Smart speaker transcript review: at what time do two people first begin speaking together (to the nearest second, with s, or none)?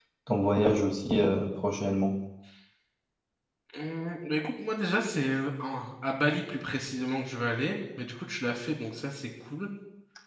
none